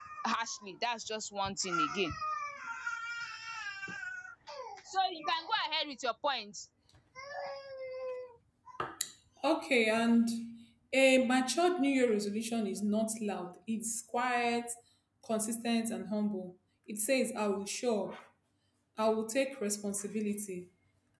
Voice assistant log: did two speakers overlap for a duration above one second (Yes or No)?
No